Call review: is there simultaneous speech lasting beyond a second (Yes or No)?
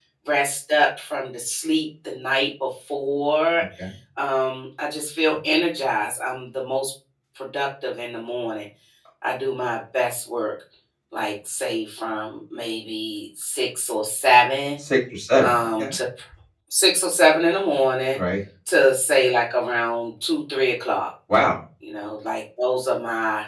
No